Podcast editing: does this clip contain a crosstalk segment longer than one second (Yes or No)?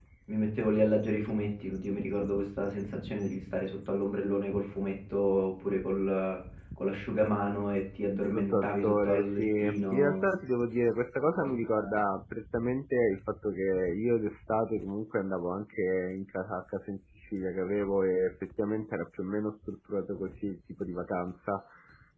Yes